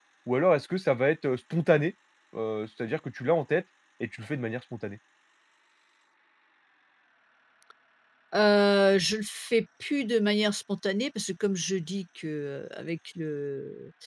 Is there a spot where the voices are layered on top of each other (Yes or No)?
No